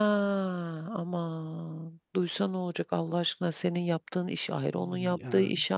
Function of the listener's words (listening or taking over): listening